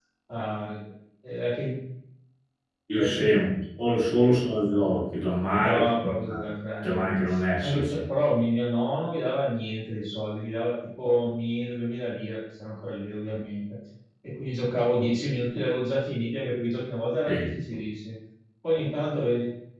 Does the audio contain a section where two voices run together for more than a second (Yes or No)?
No